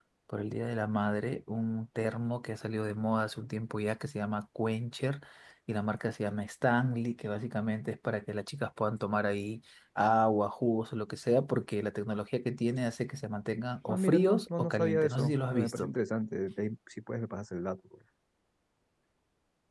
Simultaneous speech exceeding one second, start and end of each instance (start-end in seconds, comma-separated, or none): 13.9-15.9